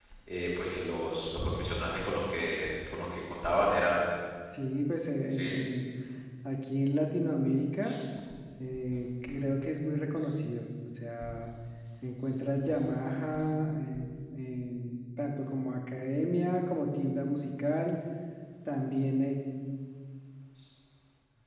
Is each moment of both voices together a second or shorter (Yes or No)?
Yes